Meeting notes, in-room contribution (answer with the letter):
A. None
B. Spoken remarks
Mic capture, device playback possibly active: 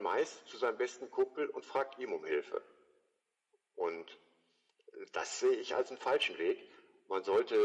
A